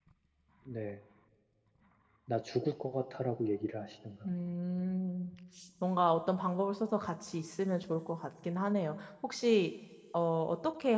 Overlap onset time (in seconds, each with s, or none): none